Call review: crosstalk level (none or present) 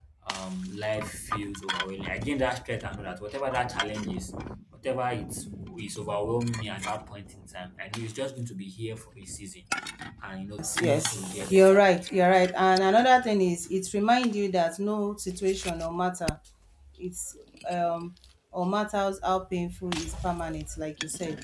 present